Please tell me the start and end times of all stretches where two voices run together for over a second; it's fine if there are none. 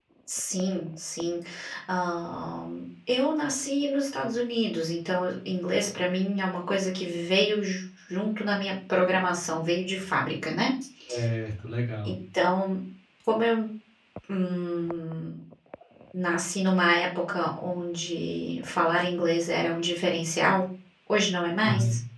none

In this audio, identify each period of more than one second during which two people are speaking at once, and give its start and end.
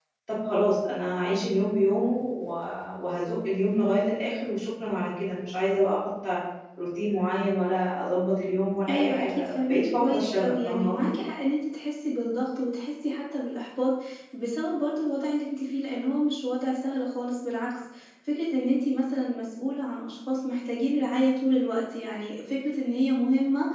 8.9-11.2

